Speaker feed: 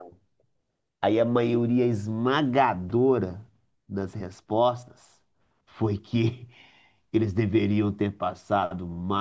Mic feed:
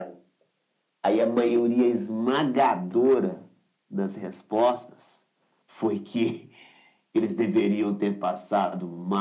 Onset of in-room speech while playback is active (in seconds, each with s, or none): none